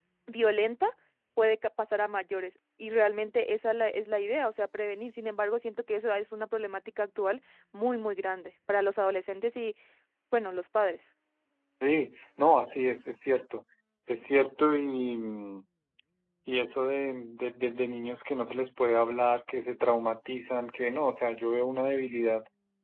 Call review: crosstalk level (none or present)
none